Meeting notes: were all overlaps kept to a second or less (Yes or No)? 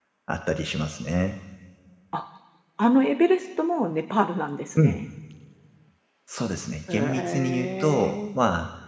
No